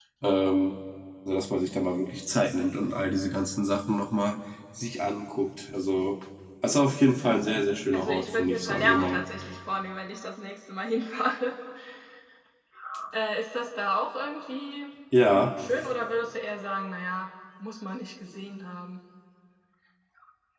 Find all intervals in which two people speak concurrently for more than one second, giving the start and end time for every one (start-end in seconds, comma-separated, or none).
7.9-9.2